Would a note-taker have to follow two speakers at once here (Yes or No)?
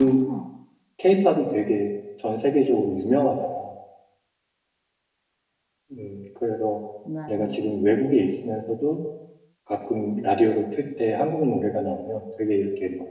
Yes